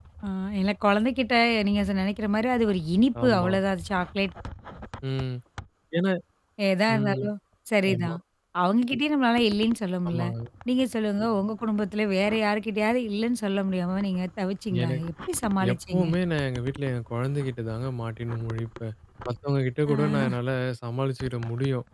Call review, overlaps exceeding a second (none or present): none